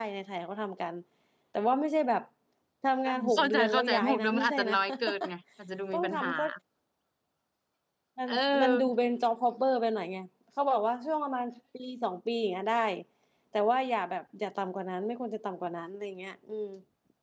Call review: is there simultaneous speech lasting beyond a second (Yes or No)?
Yes